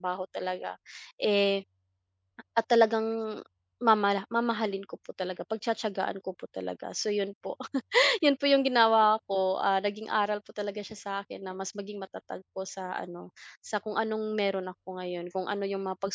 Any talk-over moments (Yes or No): No